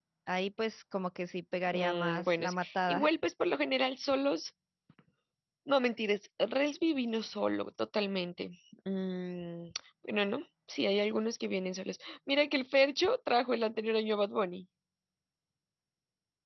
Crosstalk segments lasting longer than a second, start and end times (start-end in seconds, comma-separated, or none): 1.7-3.1